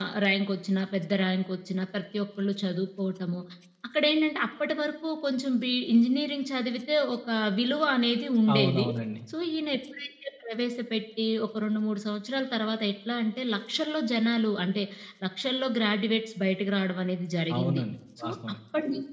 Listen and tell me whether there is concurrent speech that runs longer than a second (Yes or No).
No